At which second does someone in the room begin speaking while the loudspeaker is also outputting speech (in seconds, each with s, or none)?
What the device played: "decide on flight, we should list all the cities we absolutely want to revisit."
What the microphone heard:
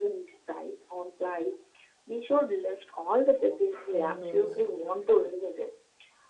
3.9 s